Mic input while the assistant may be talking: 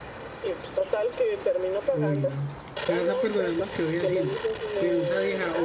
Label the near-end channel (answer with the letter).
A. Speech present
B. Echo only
A